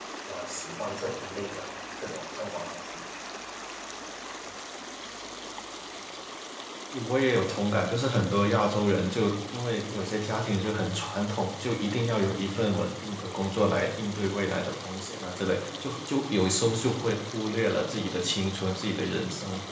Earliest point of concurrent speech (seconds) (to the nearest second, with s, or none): none